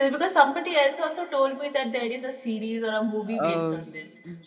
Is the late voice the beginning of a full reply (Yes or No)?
Yes